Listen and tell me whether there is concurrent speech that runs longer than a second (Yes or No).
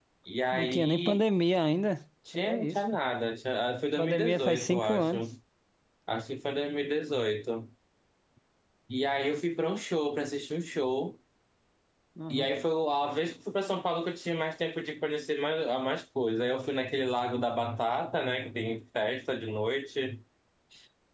Yes